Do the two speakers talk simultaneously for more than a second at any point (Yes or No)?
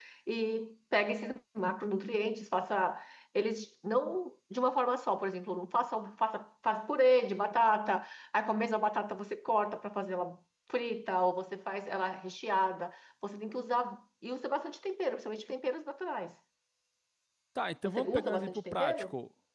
Yes